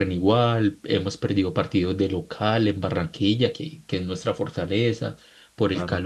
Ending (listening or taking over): listening